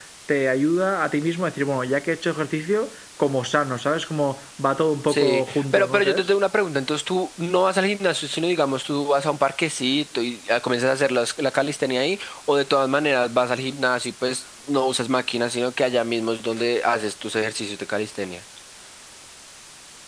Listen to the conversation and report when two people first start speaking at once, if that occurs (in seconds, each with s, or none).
5.1 s